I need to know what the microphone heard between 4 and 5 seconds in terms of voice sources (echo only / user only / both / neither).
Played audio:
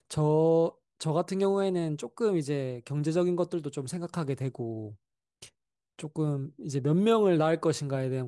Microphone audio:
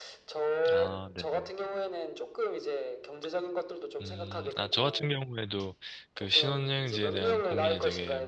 both